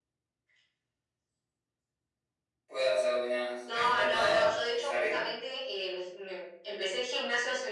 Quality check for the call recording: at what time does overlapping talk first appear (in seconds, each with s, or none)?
3.7 s